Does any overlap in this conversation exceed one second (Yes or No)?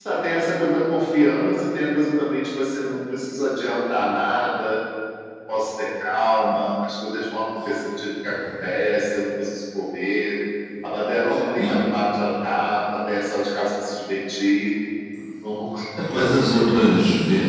No